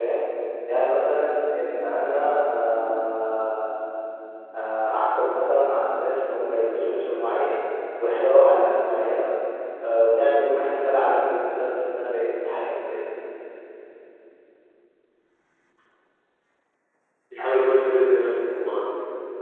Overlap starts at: none

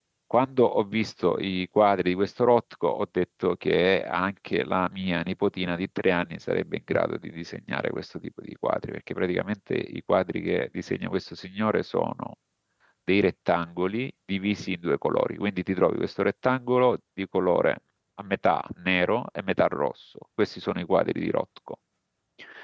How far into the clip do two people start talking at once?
none

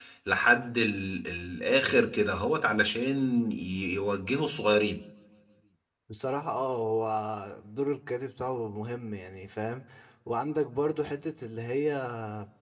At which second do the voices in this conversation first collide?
none

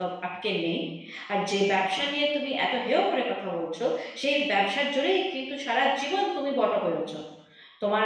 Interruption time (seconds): none

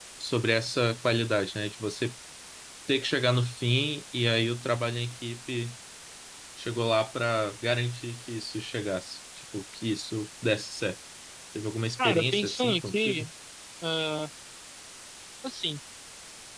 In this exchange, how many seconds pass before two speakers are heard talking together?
12.0 s

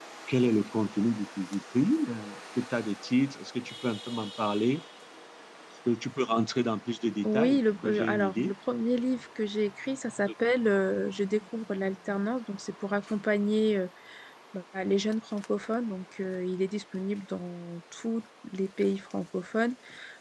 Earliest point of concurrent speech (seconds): 7.2 s

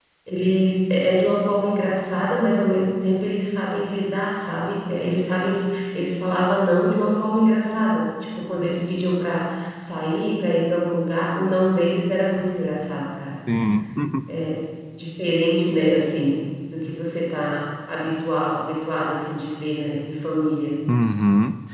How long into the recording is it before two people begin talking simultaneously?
none

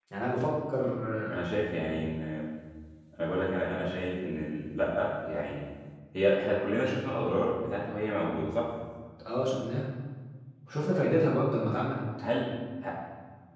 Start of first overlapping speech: none

